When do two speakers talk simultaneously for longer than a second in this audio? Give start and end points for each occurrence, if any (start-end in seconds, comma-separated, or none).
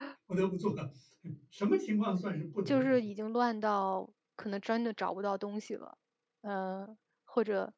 none